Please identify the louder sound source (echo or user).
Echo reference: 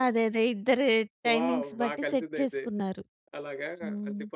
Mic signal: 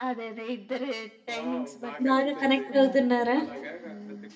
user